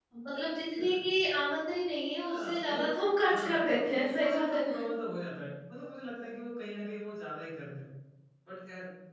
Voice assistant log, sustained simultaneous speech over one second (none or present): present